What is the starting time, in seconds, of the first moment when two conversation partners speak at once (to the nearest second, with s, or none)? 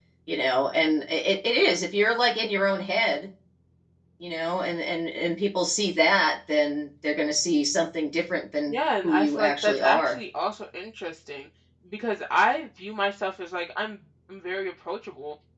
9 s